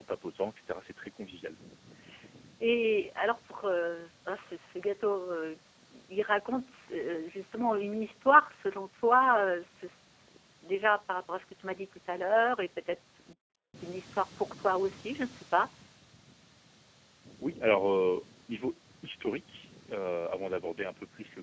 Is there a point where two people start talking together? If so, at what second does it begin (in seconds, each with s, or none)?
none